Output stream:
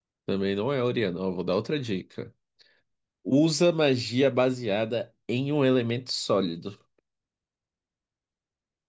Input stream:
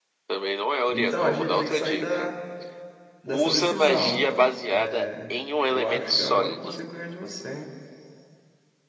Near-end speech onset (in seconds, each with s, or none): 0.9 s